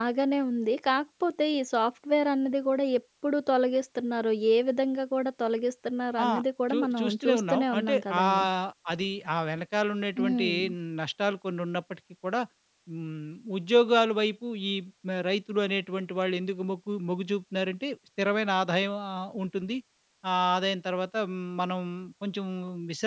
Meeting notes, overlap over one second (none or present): present